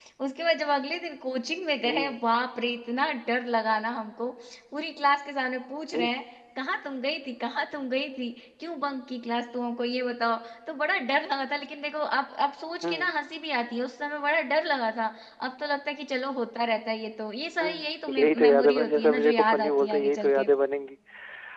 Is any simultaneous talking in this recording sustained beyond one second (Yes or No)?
Yes